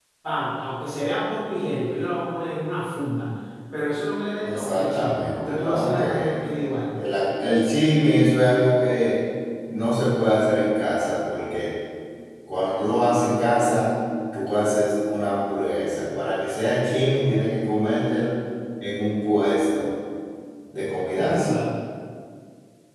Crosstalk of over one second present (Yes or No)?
Yes